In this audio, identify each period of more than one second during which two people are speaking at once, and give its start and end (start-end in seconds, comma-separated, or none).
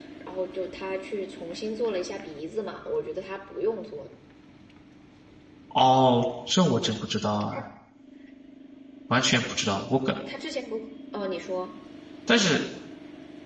none